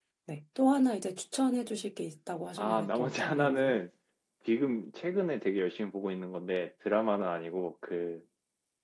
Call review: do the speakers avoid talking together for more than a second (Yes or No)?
No